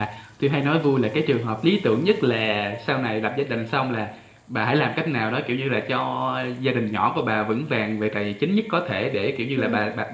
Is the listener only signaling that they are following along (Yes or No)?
Yes